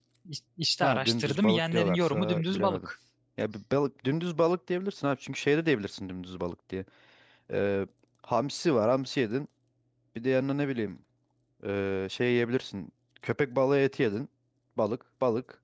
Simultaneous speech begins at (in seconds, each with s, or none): 0.8 s